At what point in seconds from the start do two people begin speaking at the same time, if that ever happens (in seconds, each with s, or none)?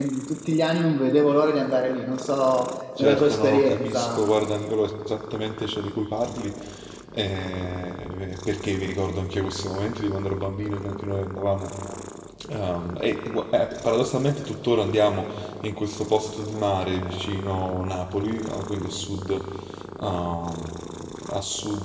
3.0 s